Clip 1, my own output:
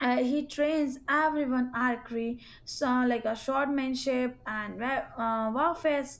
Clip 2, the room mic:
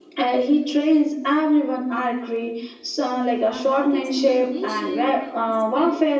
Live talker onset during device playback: 3 s

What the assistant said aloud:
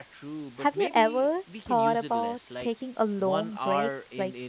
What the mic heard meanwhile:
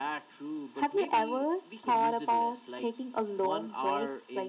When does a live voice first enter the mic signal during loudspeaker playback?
none

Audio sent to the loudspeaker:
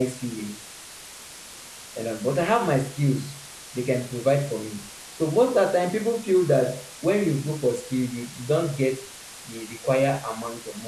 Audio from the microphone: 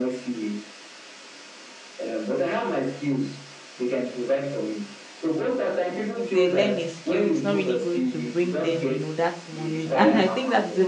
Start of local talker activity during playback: 6 s

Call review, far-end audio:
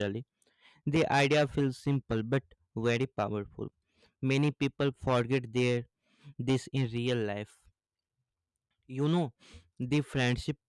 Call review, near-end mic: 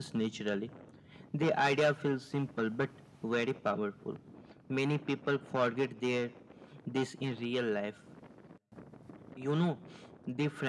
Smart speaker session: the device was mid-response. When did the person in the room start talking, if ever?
none

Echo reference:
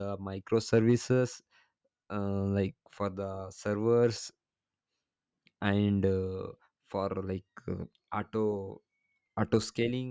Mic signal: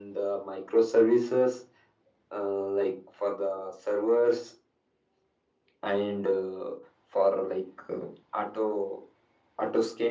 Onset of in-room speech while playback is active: none

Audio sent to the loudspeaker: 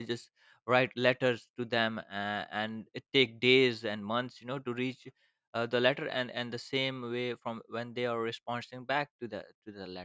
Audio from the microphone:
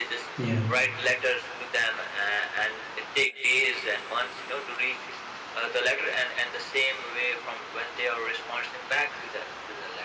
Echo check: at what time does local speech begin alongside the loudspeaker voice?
0 s

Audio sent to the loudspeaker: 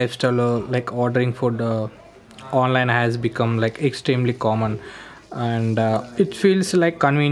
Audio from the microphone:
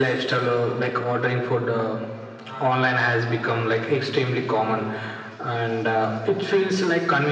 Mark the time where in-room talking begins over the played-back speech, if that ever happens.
none

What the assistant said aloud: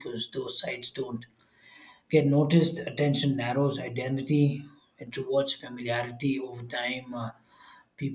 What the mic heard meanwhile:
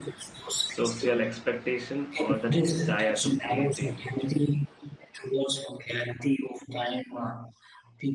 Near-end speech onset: 1 s

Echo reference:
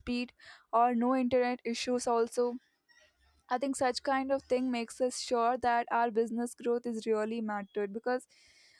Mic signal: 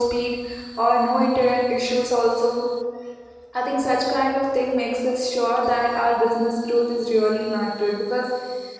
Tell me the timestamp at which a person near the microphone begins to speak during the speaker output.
none

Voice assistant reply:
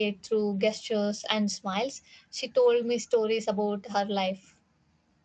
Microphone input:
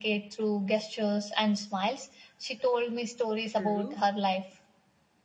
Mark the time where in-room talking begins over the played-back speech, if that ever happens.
3 s

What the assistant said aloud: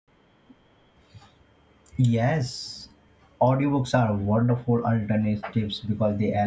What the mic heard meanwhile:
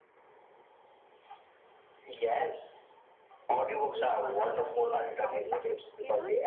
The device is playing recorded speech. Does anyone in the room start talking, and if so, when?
4 s

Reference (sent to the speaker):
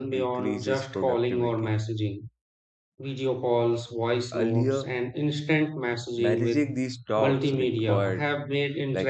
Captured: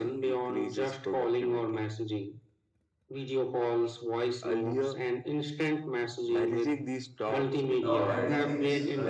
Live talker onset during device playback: 8 s

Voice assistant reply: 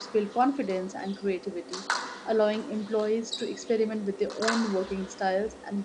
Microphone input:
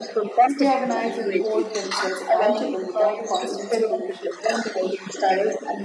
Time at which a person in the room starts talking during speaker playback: 0 s

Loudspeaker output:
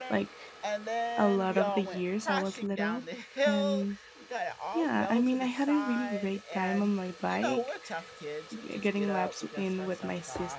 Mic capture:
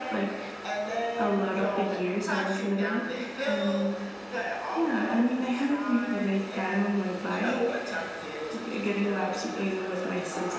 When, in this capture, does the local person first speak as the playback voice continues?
none

